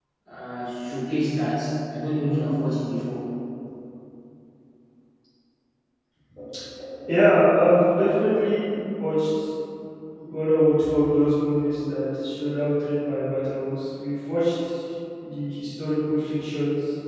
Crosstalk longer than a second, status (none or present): none